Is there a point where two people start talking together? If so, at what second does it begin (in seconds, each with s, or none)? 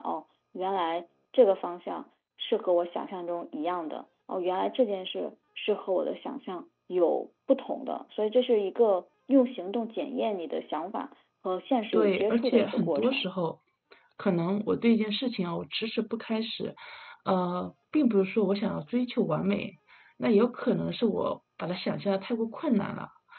11.9 s